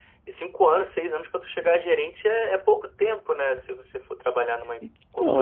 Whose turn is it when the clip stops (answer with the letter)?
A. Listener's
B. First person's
A